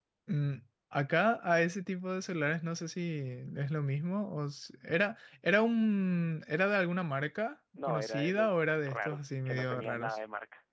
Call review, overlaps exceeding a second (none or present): present